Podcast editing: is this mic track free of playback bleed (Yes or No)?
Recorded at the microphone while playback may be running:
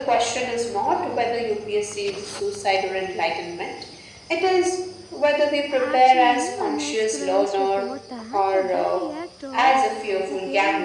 No